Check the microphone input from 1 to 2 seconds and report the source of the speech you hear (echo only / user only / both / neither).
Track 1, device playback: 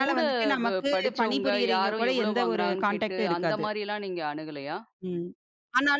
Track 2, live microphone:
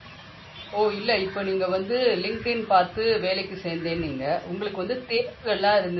user only